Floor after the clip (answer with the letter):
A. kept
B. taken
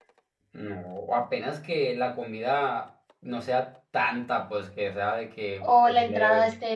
B